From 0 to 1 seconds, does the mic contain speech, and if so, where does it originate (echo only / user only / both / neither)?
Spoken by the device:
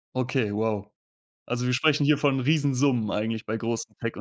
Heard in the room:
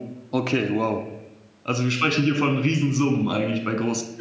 echo only